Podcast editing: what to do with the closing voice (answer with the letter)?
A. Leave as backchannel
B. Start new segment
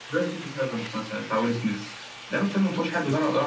A